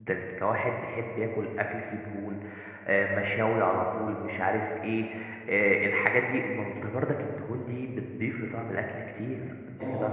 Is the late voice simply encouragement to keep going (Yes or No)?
No